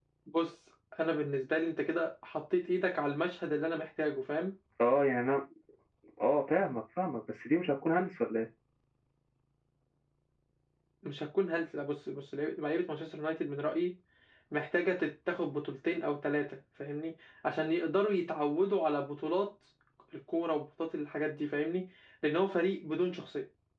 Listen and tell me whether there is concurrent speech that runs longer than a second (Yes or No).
No